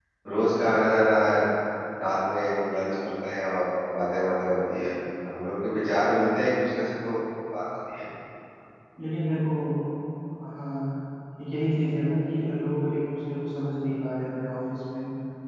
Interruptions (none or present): none